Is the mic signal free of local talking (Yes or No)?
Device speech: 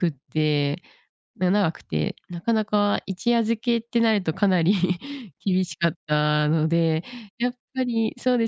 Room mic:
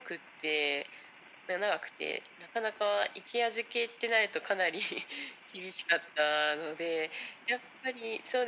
Yes